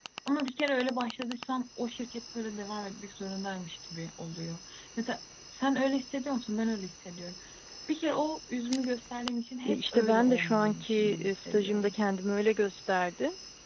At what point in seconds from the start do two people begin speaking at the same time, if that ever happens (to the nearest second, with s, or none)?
10 s